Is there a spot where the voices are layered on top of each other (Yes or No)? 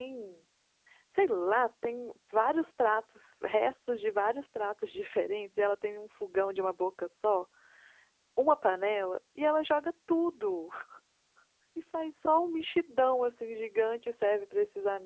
No